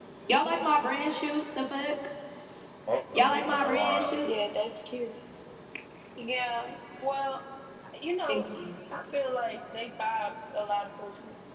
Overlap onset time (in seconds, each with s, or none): 3.1 s